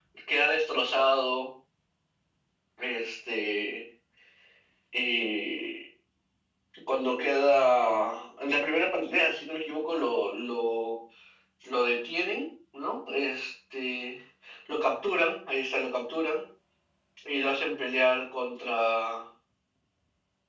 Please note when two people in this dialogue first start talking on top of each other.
none

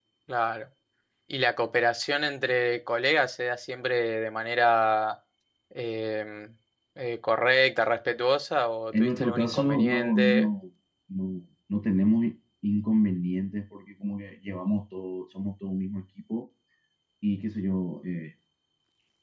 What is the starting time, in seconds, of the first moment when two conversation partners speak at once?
8.9 s

